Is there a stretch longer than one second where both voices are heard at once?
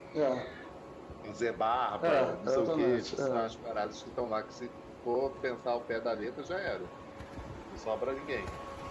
Yes, from 2.1 s

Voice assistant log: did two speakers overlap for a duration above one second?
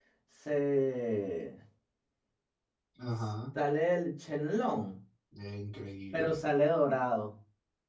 No

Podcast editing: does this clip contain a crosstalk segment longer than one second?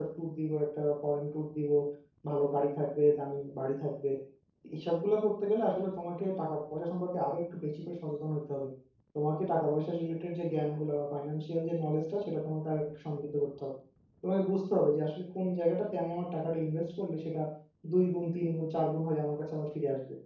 No

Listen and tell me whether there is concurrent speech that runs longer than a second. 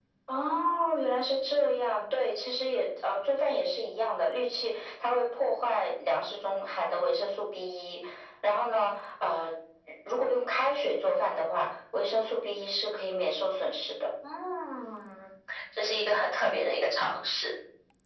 No

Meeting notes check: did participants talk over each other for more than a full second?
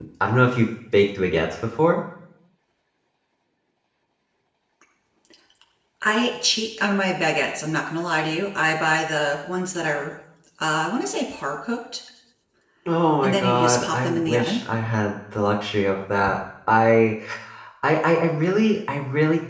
Yes, from 13.2 s

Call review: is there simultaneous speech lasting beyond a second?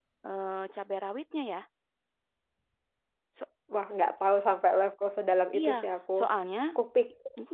No

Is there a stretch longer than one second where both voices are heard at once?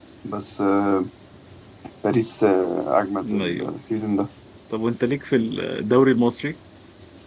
No

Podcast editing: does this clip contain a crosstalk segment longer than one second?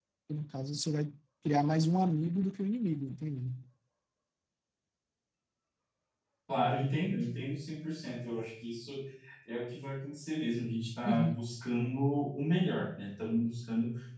No

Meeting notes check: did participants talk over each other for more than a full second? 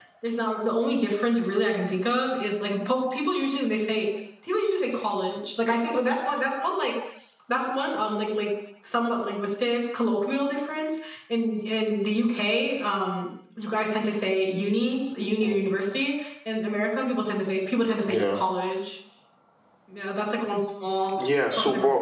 No

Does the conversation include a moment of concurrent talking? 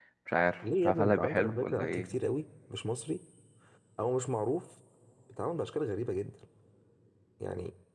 Yes, from 0.8 s

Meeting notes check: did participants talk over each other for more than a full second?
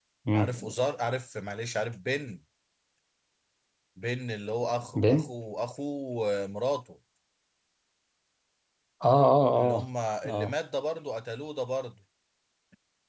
No

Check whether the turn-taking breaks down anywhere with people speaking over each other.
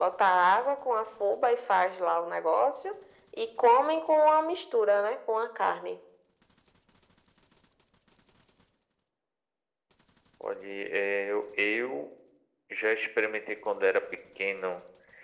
No

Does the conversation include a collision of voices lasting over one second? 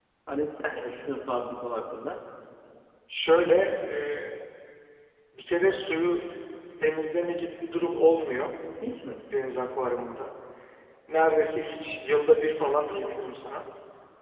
No

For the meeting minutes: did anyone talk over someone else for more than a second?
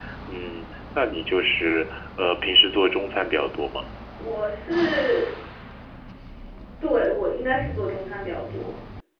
No

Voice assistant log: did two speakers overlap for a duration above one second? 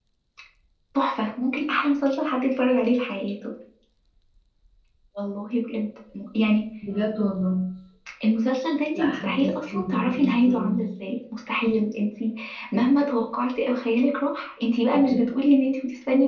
Yes, from 8.9 s

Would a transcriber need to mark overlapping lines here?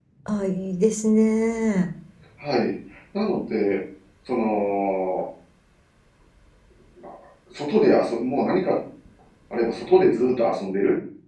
No

